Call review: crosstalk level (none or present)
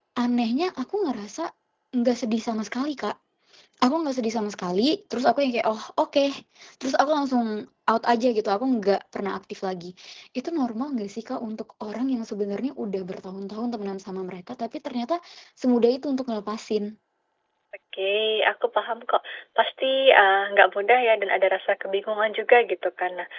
none